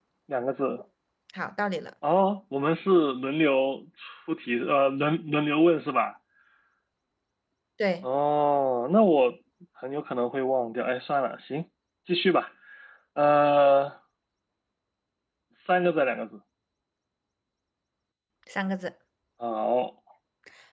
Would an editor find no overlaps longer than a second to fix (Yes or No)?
Yes